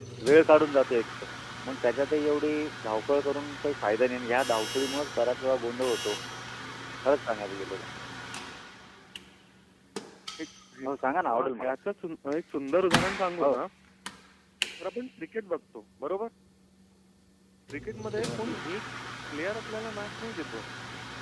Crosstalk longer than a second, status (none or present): none